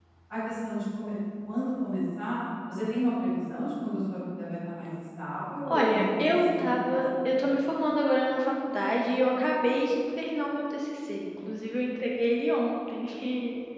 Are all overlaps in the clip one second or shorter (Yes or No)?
No